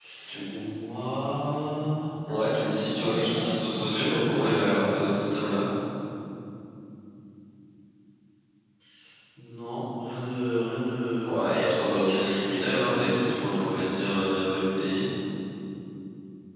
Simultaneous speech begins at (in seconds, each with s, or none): 2.9 s